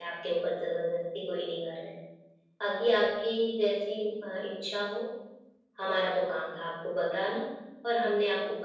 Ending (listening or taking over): listening